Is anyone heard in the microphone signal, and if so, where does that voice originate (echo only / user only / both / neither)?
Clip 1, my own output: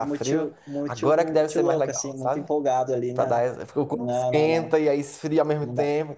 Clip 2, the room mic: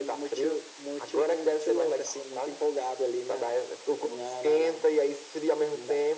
echo only